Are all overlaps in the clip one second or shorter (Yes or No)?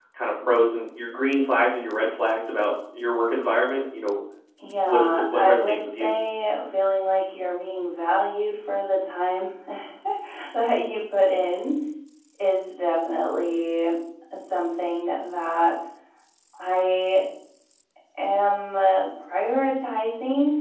No